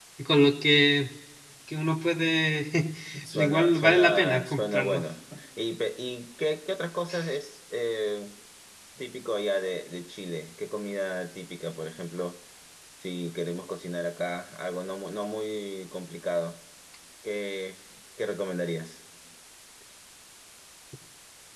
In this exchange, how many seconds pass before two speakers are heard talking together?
3 s

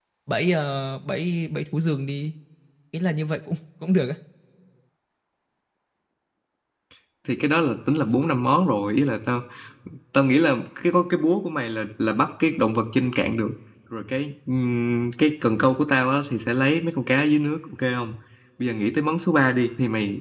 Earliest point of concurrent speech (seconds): none

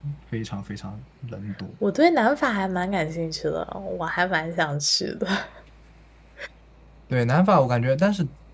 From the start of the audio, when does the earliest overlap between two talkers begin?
none

